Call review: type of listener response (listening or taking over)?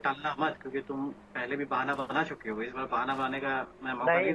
taking over